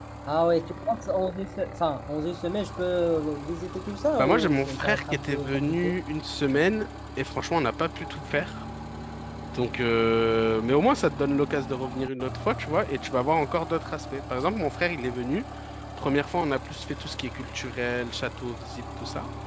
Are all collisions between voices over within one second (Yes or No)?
No